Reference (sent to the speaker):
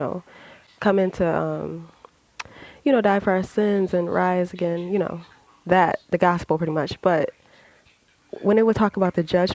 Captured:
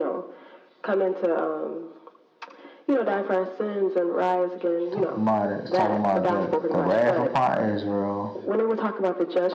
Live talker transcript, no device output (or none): talking about it. It's talking about the, the wrath upon Israel,